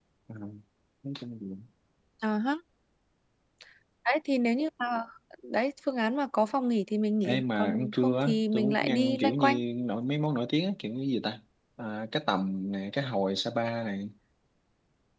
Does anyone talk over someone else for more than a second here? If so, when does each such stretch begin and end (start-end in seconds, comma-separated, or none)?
7.2-9.6